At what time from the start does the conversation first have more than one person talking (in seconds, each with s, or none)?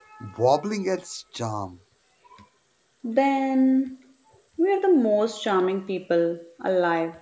none